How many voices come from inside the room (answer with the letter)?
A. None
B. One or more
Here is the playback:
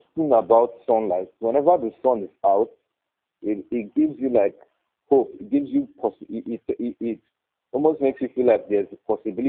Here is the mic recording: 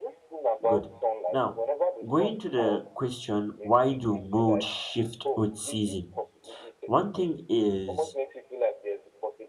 B